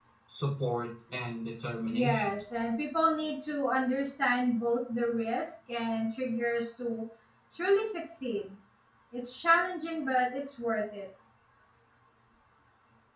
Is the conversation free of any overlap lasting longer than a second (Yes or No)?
Yes